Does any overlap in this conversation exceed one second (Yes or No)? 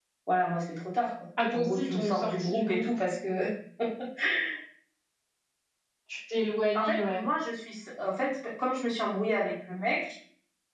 Yes